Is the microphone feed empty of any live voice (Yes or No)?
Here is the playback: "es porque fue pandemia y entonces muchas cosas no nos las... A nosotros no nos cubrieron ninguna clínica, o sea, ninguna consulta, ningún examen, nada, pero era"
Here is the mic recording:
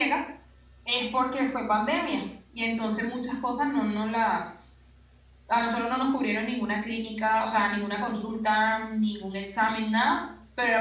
Yes